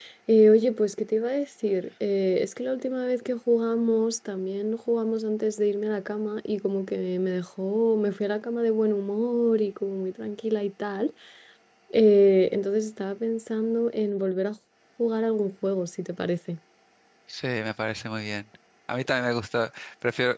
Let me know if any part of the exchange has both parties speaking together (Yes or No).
No